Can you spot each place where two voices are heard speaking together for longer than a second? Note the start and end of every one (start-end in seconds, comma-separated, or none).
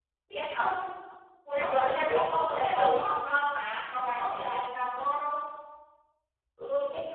1.6-2.9